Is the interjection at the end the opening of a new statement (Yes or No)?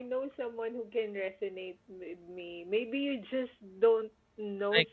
No